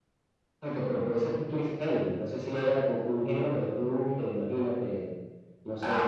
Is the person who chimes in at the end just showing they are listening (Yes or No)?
No